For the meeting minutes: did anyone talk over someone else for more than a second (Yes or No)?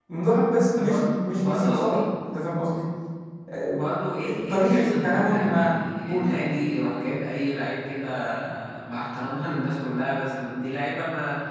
Yes